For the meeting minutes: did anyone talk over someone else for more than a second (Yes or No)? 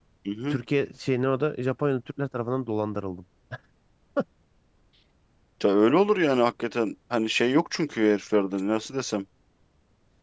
No